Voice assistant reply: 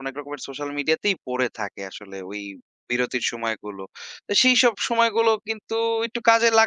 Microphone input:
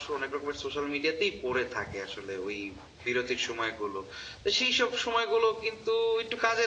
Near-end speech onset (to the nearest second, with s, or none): none